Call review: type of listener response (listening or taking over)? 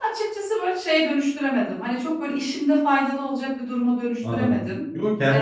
taking over